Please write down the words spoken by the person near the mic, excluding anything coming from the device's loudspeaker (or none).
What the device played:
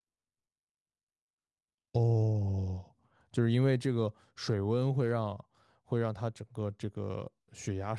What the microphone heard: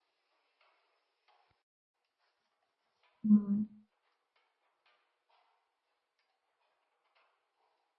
嗯，